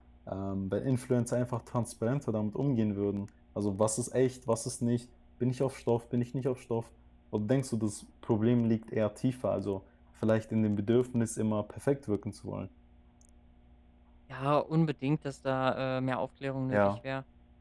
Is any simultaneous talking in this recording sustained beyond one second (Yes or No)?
No